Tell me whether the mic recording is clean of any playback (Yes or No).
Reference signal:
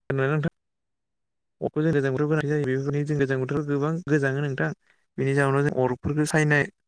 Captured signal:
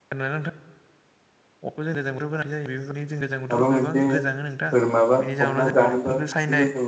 No